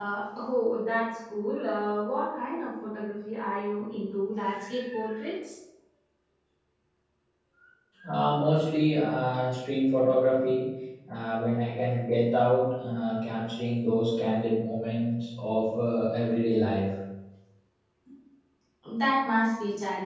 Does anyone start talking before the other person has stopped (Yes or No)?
No